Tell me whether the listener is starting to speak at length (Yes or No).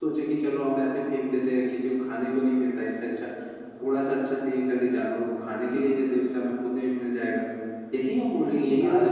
No